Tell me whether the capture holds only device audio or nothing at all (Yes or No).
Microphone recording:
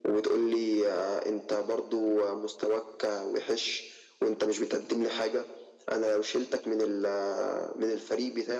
Yes